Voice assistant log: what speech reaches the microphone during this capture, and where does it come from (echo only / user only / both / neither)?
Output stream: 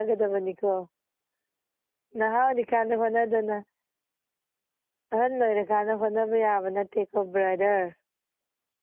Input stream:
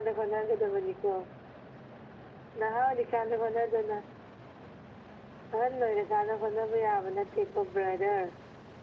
echo only